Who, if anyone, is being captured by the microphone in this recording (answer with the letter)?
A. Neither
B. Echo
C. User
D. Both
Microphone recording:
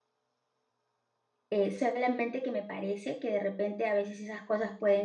C